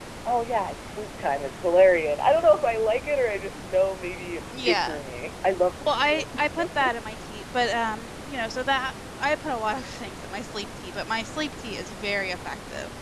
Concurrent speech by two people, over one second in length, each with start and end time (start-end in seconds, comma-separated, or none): none